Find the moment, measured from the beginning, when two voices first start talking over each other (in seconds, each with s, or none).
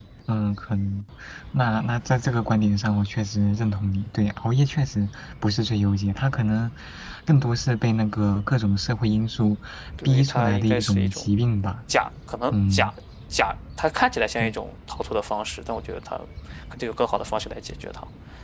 10.0 s